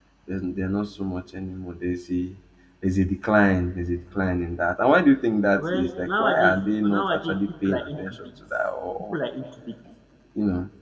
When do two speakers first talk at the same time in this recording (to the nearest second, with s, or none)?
6 s